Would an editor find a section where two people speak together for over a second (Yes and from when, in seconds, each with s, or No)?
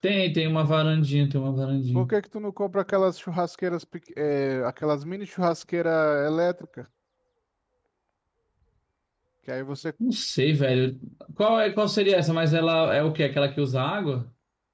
No